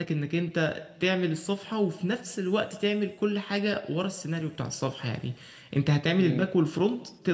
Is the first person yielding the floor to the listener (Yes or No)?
No